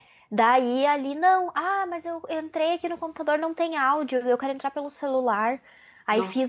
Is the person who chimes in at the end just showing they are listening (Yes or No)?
Yes